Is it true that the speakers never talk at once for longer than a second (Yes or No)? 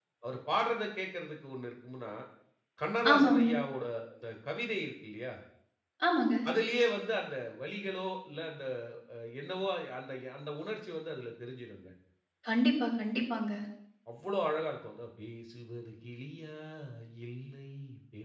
Yes